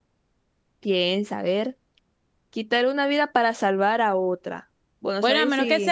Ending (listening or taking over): taking over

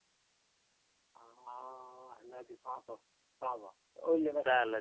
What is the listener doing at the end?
taking over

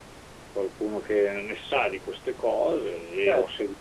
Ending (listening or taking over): listening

